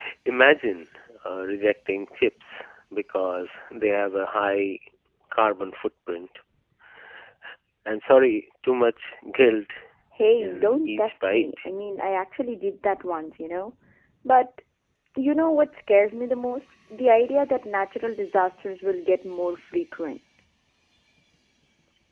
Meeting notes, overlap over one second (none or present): present